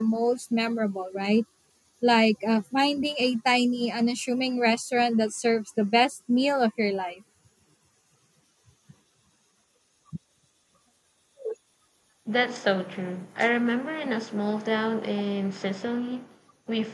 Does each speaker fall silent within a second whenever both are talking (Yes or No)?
Yes